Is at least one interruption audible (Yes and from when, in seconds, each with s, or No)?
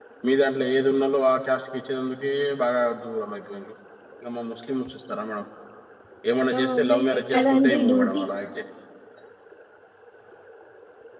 Yes, from 6.6 s